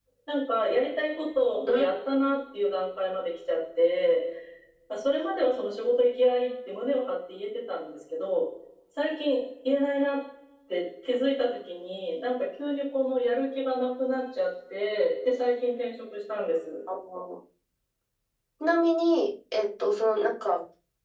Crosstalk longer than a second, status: none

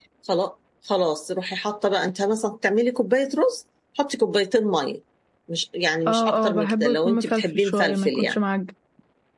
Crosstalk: present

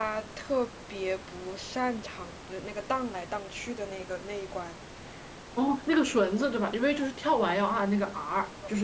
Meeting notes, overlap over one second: none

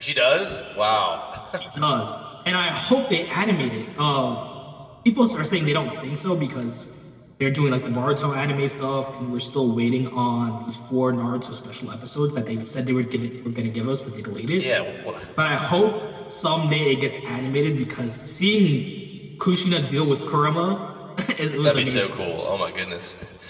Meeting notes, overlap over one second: none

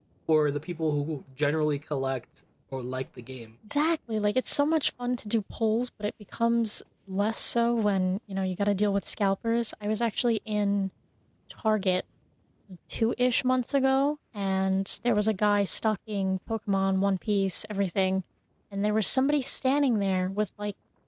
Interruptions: none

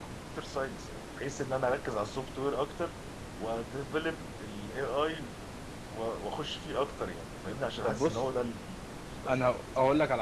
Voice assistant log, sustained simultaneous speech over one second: none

